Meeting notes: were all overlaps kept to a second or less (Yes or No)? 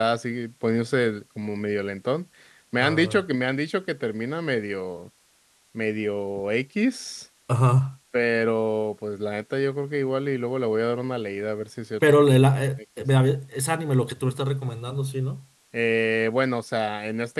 Yes